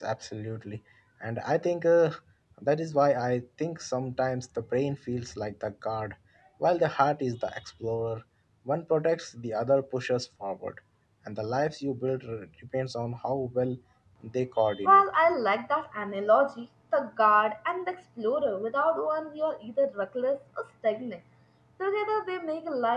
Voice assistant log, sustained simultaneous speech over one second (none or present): none